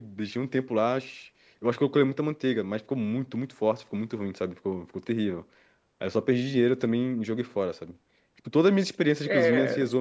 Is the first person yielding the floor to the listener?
No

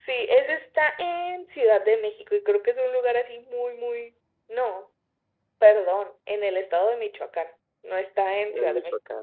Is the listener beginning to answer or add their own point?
No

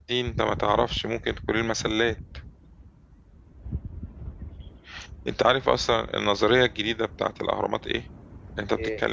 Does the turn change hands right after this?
No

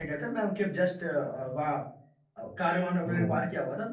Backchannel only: Yes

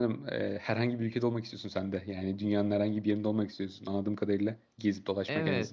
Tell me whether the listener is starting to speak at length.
Yes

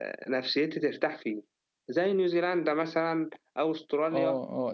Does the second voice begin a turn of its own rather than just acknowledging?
Yes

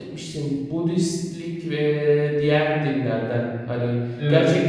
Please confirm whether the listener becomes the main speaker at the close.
No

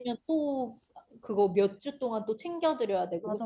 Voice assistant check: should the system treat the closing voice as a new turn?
Yes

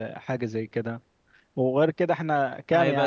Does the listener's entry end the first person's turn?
Yes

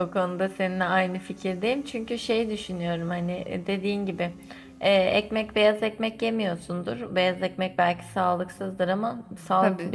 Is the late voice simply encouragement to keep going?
Yes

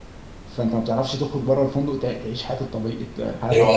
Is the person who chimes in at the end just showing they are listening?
No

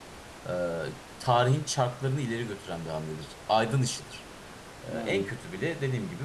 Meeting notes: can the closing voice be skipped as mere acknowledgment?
Yes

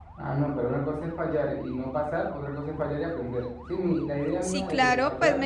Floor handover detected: Yes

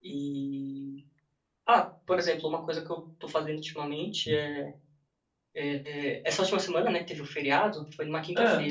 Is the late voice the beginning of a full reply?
No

